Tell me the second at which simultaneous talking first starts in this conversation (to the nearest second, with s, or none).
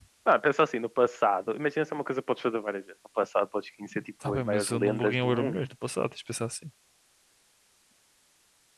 4 s